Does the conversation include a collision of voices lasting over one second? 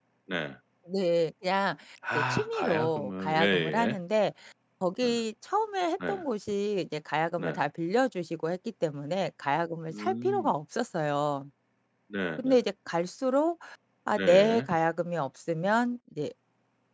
Yes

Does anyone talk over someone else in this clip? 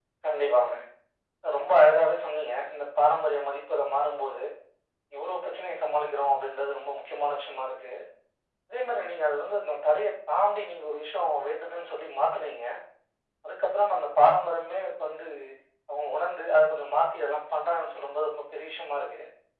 No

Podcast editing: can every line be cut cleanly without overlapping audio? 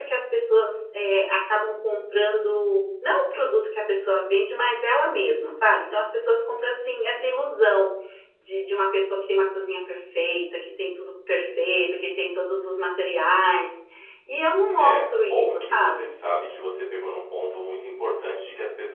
No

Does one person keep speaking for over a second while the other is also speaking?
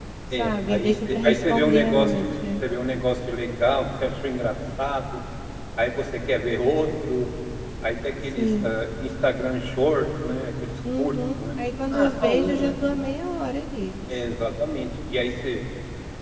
Yes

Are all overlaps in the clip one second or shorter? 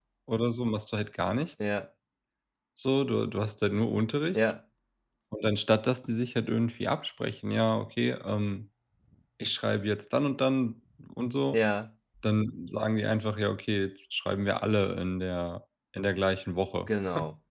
Yes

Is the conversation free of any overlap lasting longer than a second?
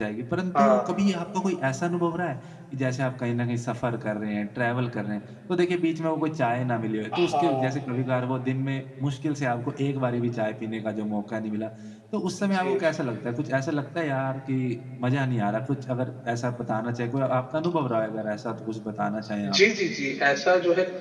Yes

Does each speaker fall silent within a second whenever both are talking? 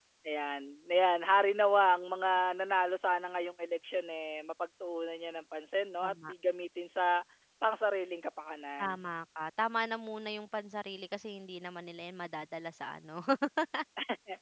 Yes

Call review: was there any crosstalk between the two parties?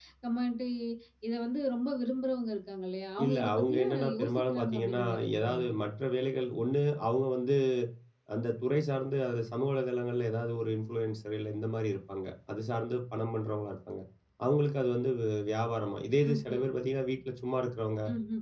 Yes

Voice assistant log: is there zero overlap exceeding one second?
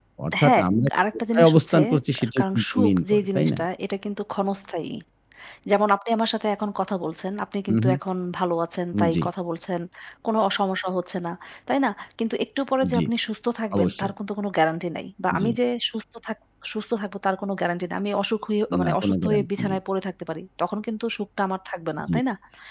No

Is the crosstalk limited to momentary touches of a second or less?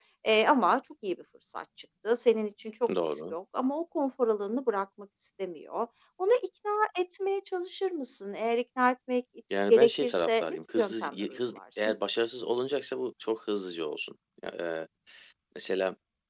No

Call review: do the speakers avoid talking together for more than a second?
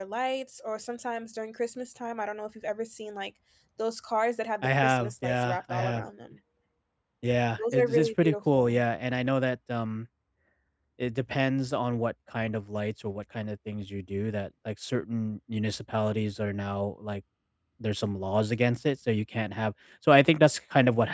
No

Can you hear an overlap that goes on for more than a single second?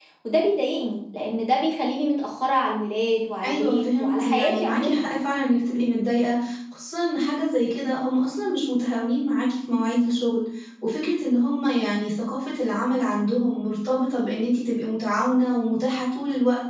Yes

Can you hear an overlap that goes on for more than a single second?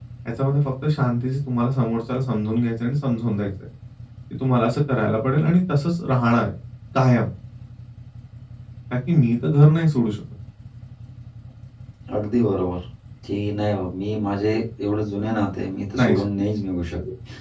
No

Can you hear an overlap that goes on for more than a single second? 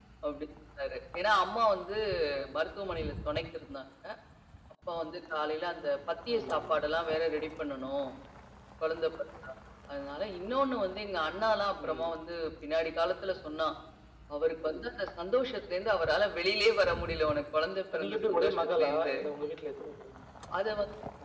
Yes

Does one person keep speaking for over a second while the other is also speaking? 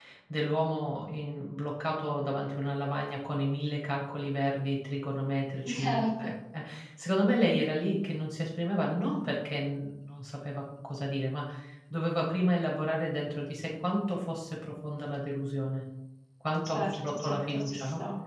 Yes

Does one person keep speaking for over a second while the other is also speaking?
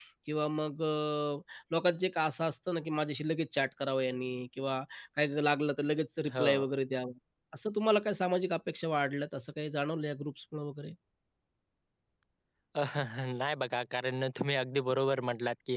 No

